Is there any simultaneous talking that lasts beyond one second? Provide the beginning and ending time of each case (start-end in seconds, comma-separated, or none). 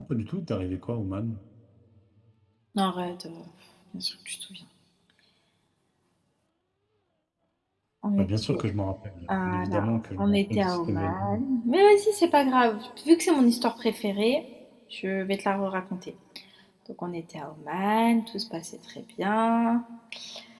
9.3-11.4